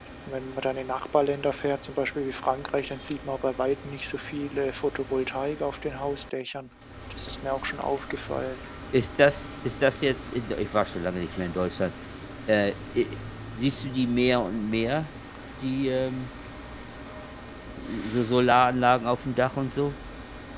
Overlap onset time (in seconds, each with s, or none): none